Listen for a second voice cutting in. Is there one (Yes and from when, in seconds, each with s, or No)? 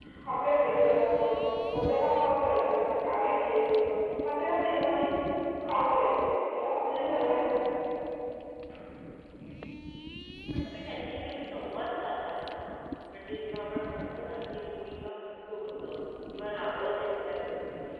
No